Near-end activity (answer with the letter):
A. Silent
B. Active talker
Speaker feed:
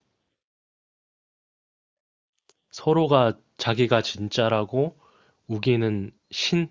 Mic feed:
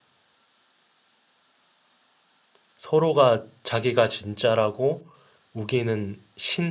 A